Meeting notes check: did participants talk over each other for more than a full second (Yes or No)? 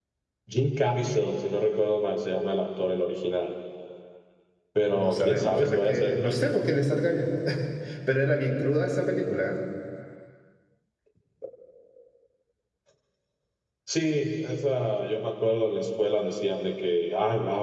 Yes